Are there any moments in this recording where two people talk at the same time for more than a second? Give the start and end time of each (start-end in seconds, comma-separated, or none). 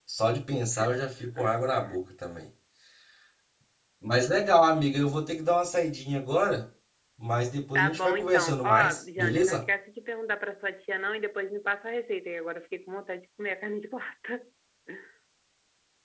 7.8-9.6